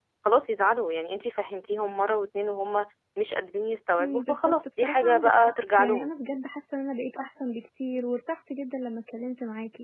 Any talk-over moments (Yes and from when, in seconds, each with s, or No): Yes, from 4.0 s